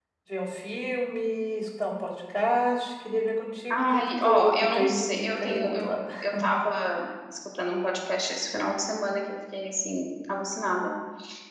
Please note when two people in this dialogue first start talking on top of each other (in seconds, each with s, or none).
3.7 s